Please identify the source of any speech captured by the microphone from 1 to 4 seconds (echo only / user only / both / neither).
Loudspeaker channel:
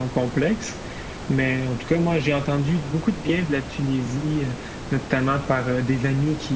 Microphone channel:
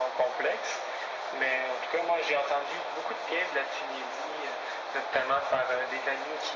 echo only